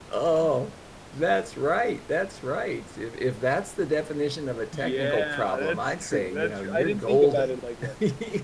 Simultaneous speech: Yes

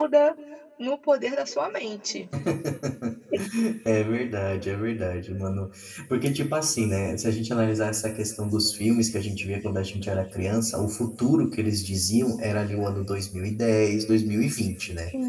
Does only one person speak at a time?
Yes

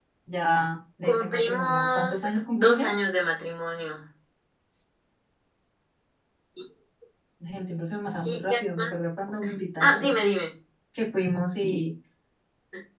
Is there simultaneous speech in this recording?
Yes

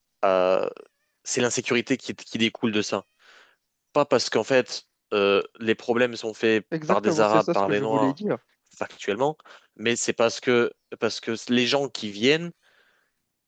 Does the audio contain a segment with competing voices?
Yes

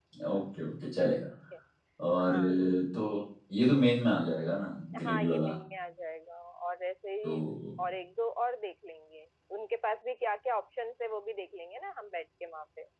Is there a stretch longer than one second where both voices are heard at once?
No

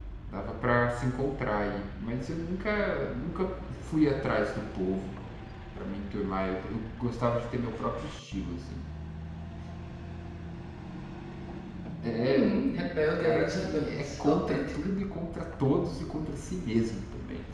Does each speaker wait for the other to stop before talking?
No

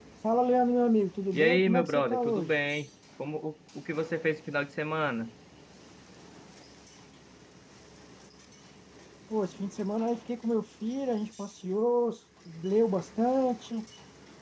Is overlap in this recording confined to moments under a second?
No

